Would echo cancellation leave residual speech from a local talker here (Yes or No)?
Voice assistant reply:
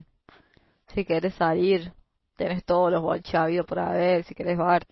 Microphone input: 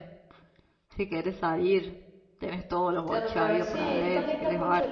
Yes